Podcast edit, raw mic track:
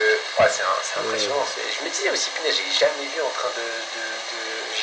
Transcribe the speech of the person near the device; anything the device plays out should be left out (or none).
Ouais, ouais.